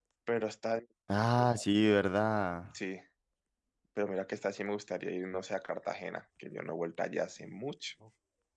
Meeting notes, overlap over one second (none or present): none